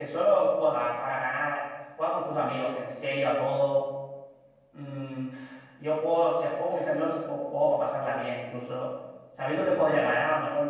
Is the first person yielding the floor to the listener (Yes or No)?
No